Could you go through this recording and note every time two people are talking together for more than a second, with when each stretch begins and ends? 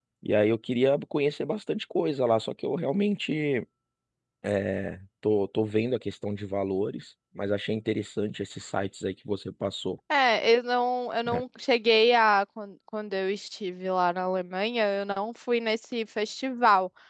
none

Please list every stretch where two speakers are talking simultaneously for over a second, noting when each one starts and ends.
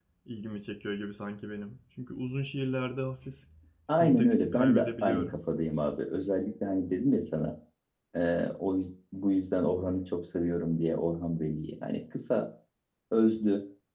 4.0-5.4

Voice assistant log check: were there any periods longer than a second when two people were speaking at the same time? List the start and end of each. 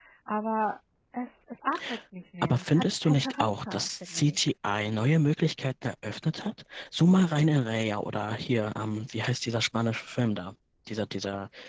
2.4-4.4

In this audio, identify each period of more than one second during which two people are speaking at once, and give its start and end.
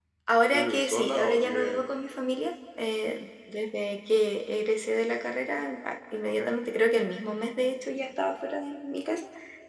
0.5-1.9

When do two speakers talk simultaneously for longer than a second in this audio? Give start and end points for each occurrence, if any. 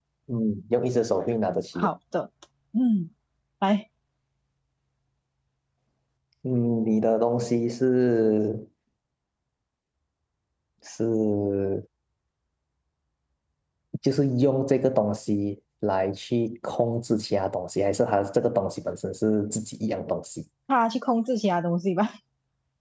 none

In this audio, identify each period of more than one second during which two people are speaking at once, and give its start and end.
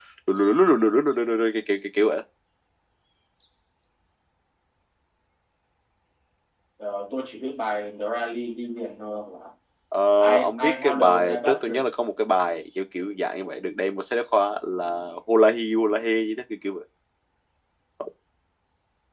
10.3-11.9

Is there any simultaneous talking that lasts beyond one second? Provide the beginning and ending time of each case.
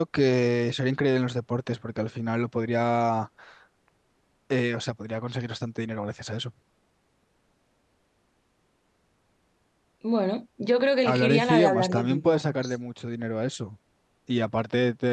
11.1-12.7

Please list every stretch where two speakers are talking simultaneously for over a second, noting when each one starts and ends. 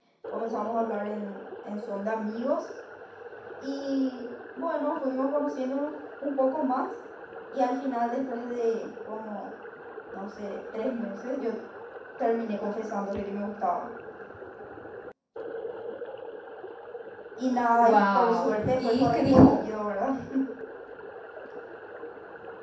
17.7-19.7

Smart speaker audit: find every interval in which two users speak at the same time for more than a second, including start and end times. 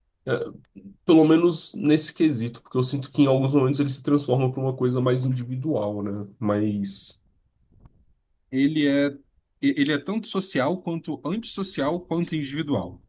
none

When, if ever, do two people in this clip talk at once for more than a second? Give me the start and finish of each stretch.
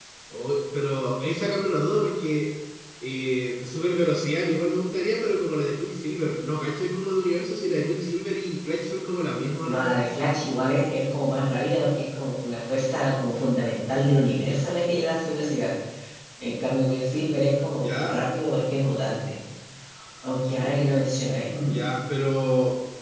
none

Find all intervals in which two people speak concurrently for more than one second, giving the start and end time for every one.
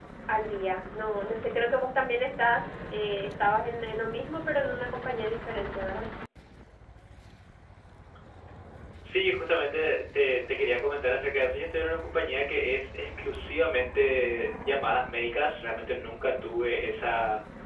none

